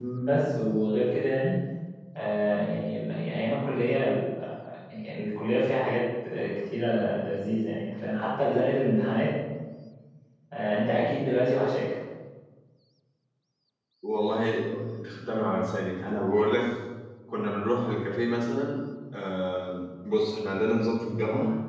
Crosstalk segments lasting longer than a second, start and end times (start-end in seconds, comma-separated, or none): none